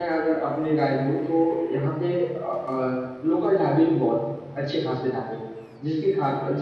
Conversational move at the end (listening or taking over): listening